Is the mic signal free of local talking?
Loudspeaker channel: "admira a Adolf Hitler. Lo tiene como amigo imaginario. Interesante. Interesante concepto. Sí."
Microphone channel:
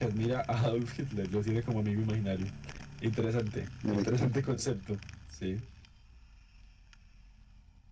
No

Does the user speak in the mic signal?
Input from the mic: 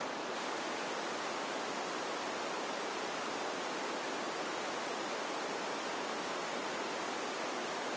No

